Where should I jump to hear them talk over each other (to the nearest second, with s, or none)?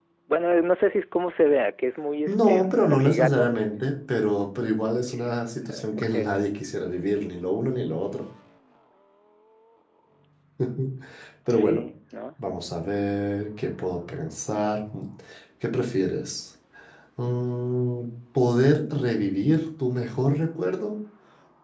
2 s